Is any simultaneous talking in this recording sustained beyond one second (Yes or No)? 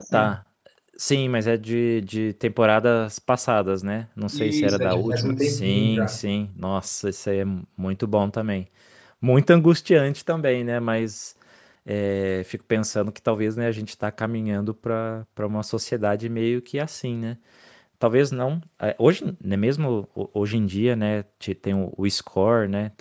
Yes